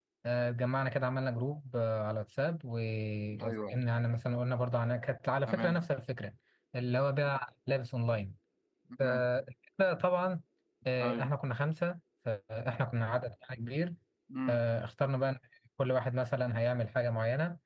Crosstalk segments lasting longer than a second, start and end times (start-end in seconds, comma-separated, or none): none